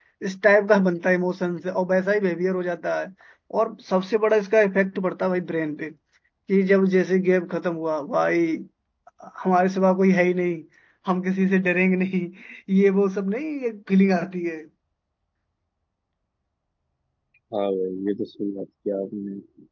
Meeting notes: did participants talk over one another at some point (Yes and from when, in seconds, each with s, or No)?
No